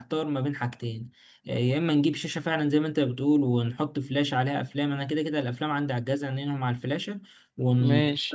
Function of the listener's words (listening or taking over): listening